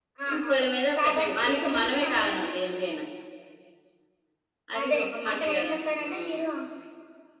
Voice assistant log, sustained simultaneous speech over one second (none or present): present